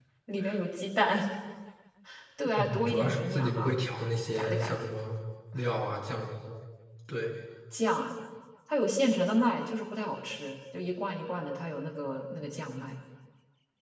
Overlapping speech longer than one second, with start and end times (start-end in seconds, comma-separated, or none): 2.6-3.8